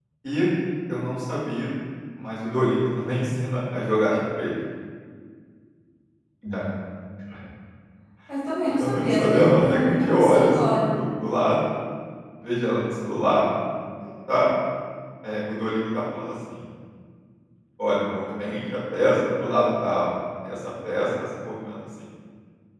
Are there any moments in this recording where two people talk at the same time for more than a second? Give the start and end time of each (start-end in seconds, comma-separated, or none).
8.8-10.9